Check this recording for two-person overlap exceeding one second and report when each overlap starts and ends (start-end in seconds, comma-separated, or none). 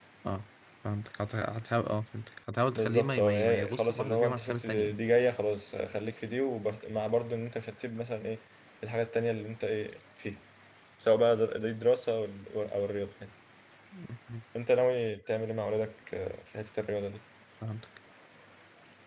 2.8-5.0